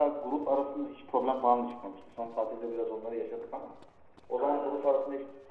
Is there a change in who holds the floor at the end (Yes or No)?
No